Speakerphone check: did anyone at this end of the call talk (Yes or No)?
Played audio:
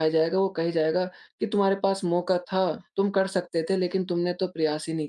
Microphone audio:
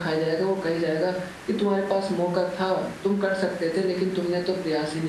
No